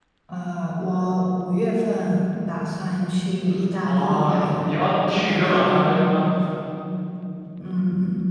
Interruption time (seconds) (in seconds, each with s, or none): 3.8 s